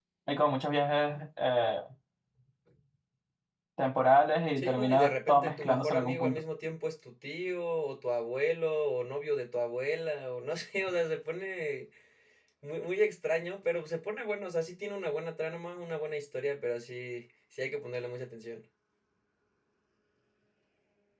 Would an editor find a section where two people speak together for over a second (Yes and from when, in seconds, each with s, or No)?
Yes, from 4.6 s